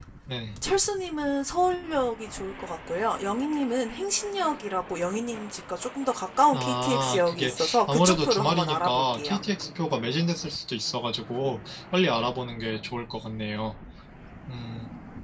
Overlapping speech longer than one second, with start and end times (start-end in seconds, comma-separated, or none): 6.5-9.4